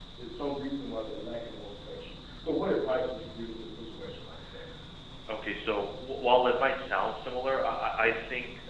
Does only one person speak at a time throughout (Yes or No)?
Yes